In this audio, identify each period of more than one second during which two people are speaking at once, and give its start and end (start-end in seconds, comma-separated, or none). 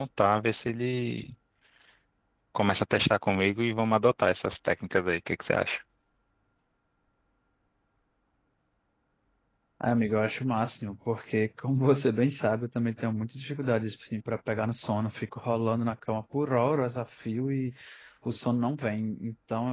none